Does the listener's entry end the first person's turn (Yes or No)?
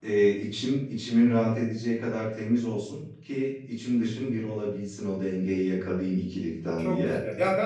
Yes